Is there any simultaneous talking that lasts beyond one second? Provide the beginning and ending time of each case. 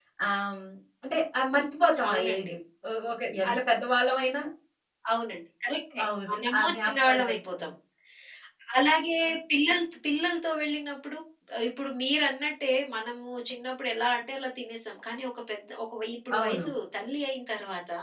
6.3-7.7

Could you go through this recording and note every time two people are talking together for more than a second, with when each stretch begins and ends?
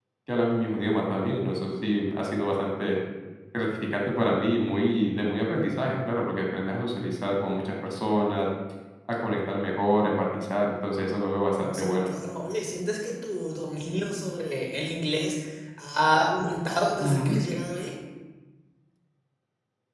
none

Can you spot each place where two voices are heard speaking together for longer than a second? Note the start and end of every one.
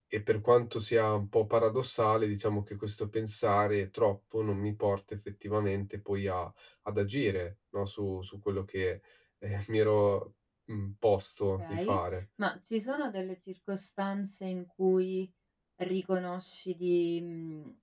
none

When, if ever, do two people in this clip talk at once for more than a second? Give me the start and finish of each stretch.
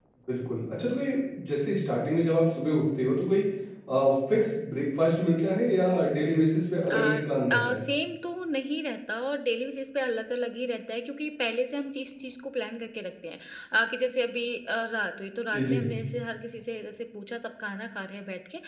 none

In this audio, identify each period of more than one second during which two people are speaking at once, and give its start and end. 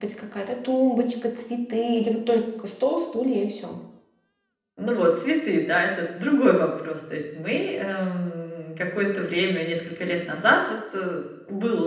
none

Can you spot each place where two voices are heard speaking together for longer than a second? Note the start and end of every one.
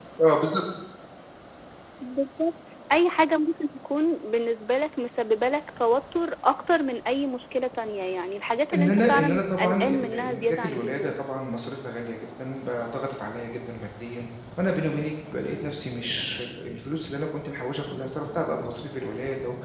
8.7-11.2

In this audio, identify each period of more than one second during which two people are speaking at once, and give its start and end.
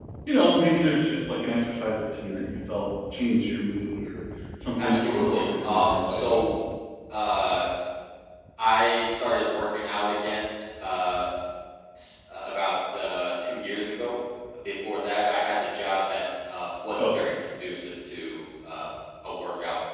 4.8-6.2

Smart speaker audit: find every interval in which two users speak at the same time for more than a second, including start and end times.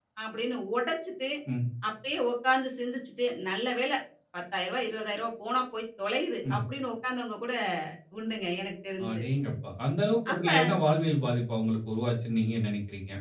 none

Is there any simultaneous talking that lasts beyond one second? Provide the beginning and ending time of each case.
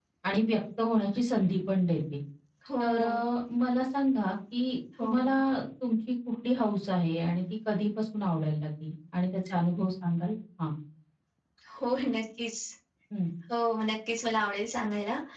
none

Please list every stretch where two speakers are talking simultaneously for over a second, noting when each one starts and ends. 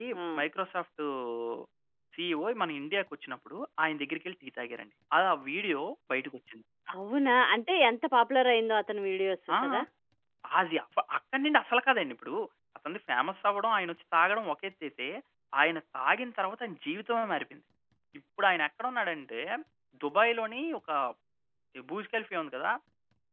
none

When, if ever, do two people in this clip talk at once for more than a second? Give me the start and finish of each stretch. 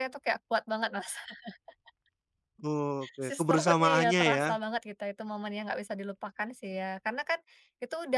3.2-4.5

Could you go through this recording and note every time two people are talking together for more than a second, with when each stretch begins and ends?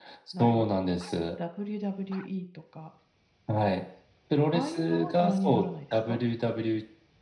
4.5-6.2

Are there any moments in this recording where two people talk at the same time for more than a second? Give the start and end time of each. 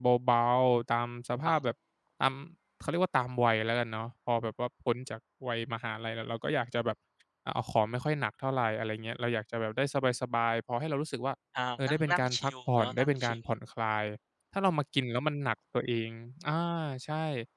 11.9-13.4

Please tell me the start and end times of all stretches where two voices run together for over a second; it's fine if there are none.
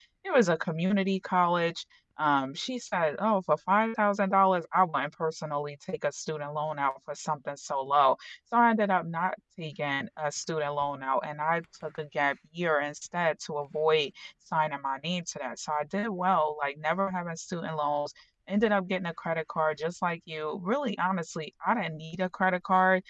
none

